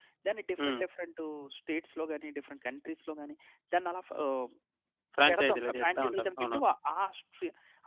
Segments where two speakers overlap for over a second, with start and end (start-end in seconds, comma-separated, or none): 5.3-6.6